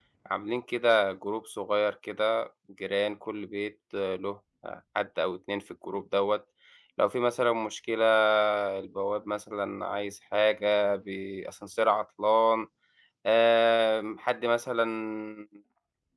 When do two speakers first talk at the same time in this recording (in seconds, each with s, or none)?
none